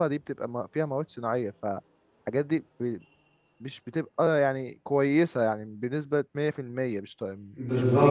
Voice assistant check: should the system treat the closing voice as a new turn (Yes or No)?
Yes